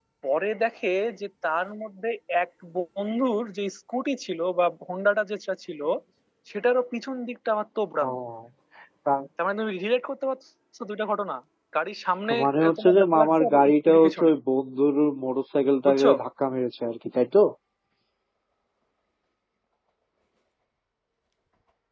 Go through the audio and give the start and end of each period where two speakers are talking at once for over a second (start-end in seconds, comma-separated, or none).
12.3-14.3